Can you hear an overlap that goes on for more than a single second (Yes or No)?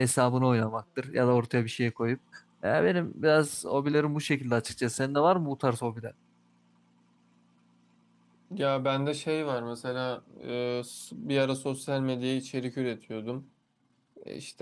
No